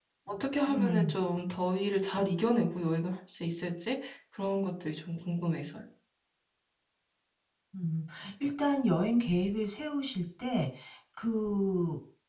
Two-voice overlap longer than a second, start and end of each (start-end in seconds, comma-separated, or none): none